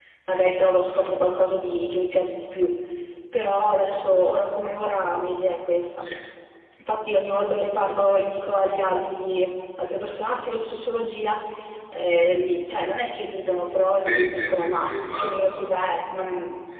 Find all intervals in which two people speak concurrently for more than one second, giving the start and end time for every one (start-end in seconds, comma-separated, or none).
13.9-15.7